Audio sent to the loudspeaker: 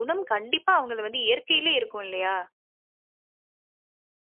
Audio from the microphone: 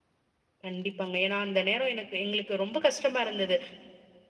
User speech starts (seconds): 0.6 s

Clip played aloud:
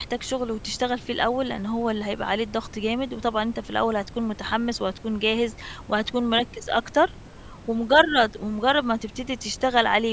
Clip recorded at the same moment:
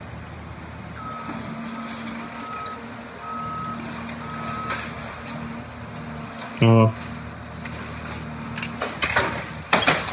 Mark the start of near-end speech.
6.6 s

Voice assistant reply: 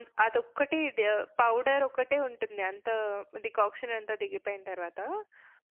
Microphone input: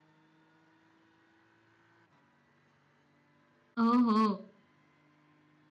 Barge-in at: 3.8 s

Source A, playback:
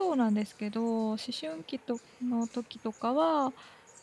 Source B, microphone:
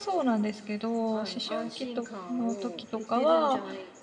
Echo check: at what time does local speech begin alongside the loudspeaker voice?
1.1 s

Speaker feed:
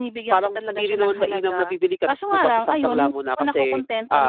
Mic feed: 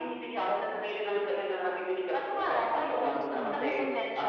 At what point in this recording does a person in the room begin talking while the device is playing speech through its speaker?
2.8 s

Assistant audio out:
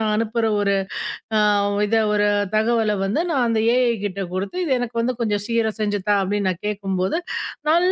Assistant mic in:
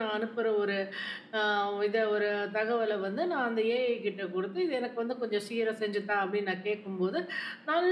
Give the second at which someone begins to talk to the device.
none

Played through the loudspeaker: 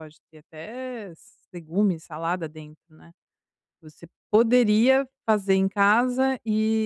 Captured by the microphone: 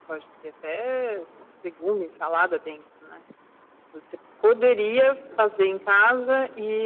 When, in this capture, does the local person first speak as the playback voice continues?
none

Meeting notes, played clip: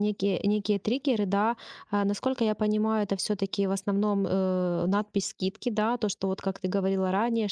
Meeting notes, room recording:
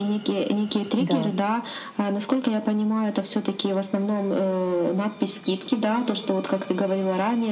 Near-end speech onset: 1.0 s

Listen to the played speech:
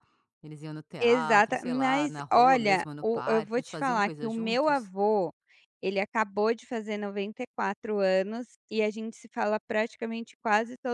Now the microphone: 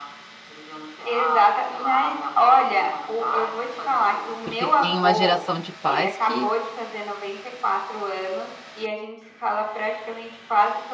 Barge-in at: 4.4 s

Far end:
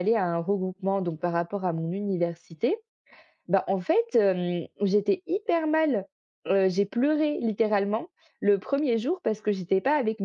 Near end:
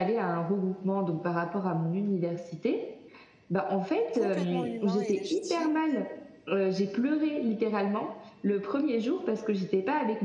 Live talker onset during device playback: 4.1 s

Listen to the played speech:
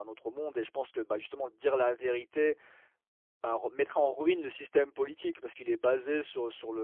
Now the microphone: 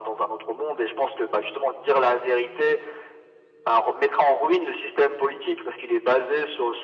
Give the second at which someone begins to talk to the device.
none

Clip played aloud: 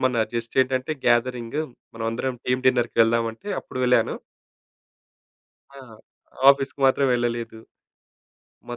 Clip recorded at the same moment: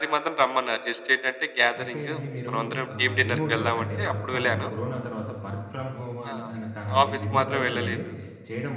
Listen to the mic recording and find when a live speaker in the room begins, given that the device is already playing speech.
1.8 s

